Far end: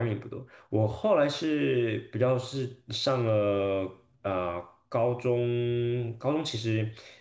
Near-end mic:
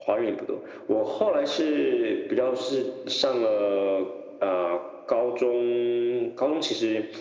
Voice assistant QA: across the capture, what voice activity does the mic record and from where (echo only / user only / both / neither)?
echo only